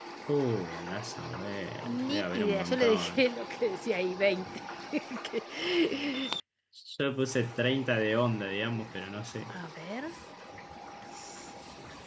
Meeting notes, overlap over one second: present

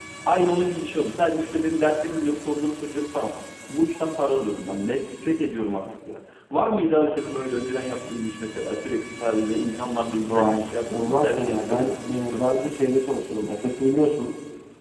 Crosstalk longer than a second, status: present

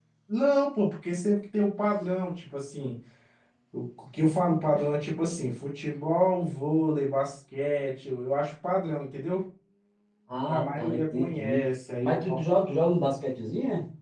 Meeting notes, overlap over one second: present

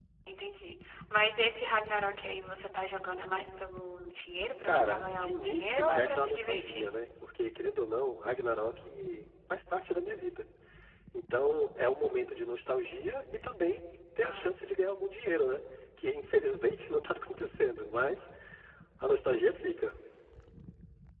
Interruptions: present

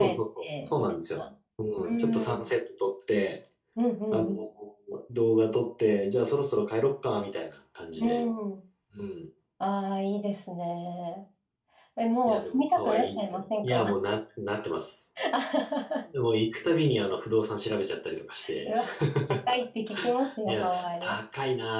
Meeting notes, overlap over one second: present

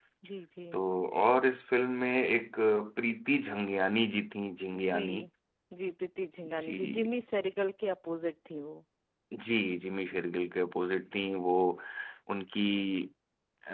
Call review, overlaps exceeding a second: none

